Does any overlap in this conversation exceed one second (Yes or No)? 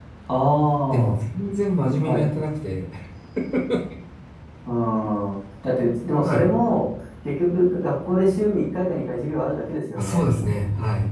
No